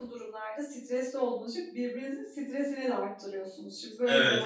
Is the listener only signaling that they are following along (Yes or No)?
Yes